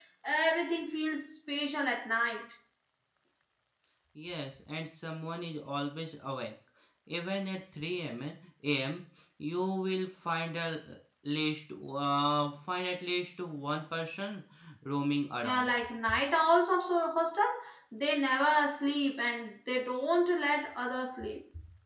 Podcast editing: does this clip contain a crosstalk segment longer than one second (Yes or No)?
No